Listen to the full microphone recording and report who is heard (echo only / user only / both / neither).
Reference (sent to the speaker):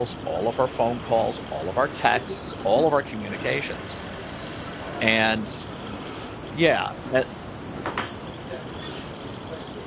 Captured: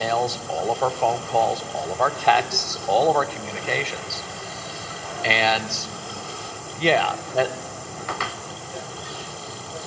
echo only